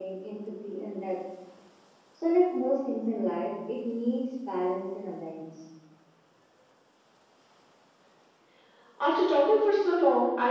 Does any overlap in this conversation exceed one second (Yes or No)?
No